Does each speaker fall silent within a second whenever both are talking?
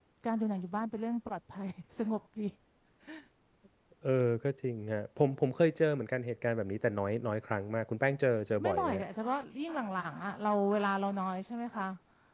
Yes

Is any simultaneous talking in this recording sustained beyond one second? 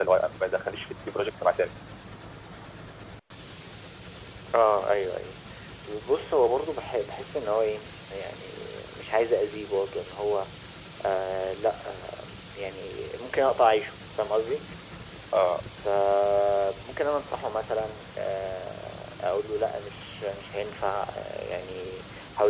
No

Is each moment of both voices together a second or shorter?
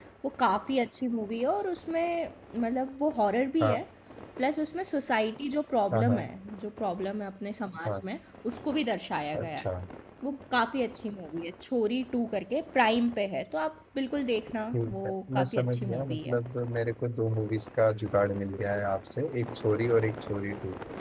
No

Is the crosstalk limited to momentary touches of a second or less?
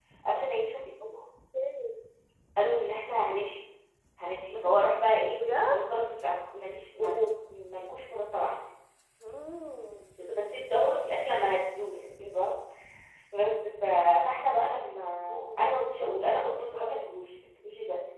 Yes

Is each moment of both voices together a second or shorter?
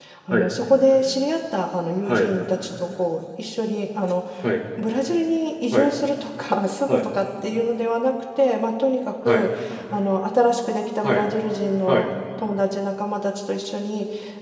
Yes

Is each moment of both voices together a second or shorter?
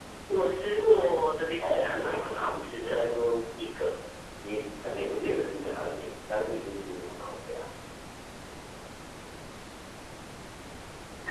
No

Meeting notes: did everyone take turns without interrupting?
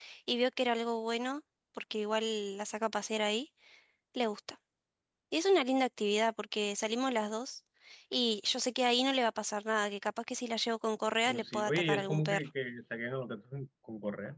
No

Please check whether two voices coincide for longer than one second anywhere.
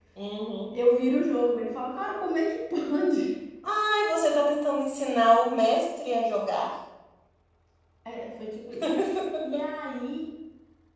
No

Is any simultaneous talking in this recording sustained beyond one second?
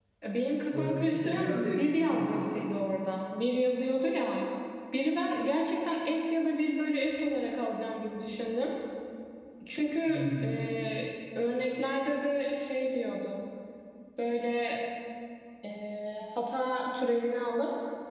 Yes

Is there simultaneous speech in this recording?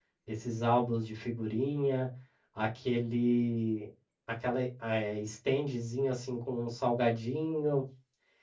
No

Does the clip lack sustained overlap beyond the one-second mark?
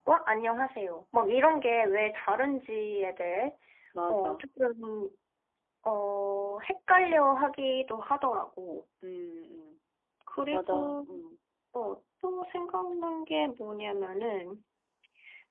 Yes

